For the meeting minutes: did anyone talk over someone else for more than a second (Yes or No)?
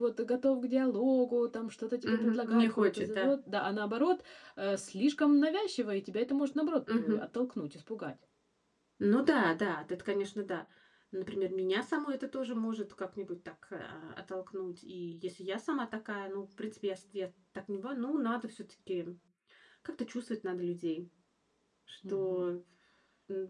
Yes